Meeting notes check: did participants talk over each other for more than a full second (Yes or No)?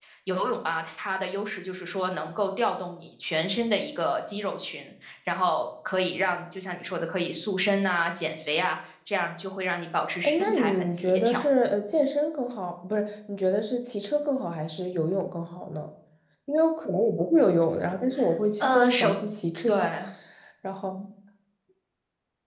Yes